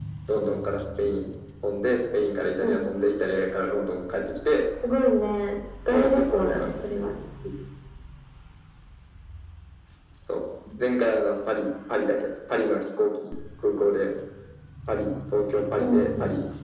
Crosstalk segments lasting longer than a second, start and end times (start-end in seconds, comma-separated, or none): 5.9-7.1